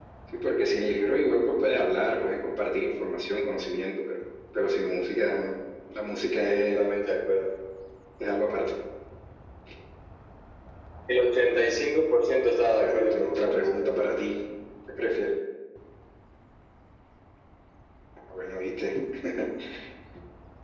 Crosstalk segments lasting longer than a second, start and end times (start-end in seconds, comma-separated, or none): 12.8-14.2